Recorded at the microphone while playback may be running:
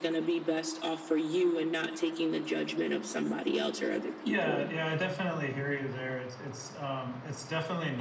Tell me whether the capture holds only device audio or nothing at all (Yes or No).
No